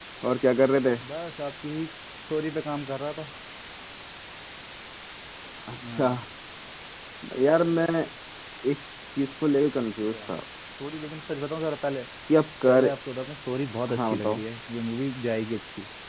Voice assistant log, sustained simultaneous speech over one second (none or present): none